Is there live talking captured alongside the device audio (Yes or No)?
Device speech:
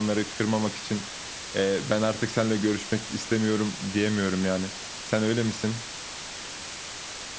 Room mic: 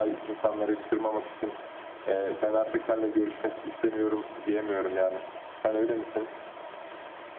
No